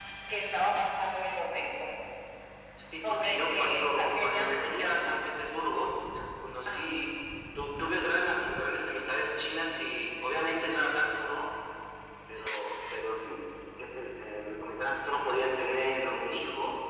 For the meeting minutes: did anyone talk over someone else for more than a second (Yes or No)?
Yes